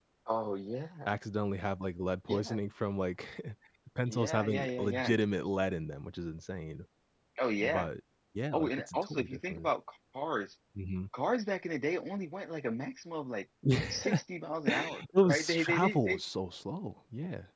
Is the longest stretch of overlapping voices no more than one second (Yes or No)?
No